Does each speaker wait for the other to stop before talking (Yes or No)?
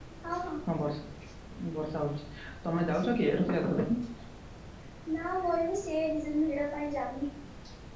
Yes